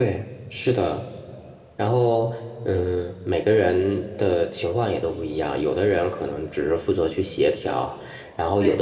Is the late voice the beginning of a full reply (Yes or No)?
No